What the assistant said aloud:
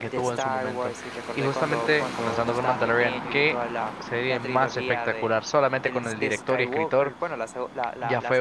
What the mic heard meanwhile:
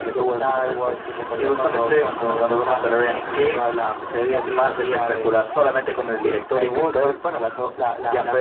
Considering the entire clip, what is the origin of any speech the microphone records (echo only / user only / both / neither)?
echo only